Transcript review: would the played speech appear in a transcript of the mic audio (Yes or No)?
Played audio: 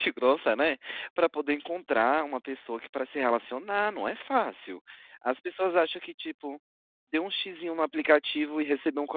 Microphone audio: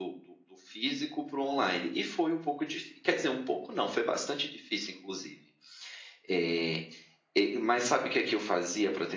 No